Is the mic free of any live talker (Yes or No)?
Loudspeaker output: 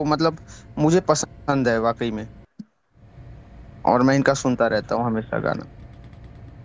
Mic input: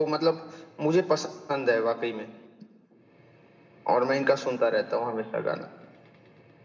Yes